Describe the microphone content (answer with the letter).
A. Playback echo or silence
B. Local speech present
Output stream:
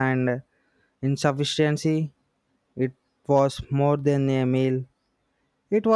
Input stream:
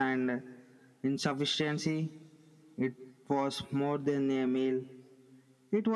A